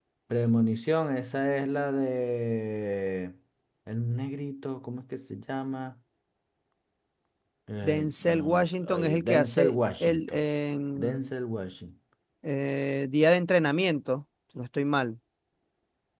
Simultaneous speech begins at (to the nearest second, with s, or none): 8 s